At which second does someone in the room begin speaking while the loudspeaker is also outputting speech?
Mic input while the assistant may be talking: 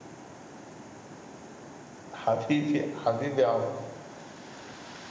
2.1 s

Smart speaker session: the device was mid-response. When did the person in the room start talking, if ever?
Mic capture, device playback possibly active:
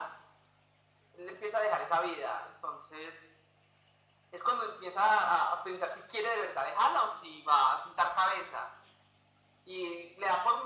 none

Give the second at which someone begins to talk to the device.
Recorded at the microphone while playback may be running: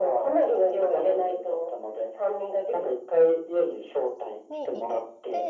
4.5 s

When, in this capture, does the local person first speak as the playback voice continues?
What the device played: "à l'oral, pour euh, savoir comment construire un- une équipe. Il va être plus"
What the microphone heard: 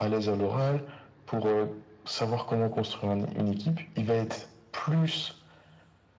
none

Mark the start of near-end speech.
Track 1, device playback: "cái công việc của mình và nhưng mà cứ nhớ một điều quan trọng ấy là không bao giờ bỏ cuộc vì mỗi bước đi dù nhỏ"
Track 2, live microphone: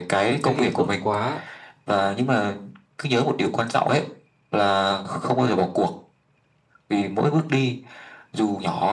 0.4 s

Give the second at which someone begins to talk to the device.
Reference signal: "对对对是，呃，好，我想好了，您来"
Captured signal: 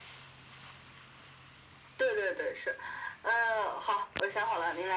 none

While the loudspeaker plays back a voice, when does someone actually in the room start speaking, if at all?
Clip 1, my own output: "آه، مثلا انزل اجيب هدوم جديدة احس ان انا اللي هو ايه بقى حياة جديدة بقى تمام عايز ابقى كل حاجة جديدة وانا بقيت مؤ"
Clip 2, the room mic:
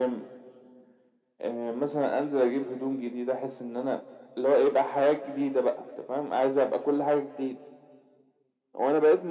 none

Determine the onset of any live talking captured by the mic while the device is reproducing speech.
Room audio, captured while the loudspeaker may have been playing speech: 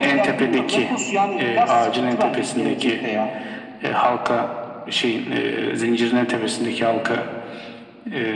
none

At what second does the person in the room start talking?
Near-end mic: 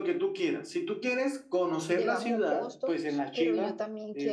1.9 s

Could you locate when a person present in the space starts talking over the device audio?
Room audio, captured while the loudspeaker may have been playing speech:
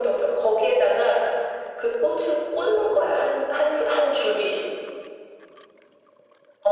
none

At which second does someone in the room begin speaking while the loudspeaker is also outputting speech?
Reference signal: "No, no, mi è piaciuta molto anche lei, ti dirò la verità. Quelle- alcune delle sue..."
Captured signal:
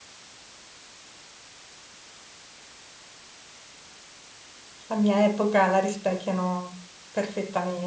4.9 s

